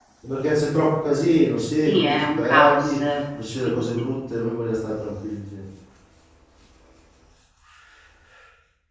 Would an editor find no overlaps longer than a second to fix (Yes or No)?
No